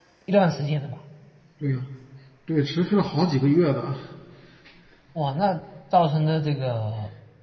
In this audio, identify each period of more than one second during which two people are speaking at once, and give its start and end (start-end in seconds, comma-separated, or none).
none